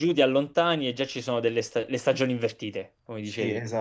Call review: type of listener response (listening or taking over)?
taking over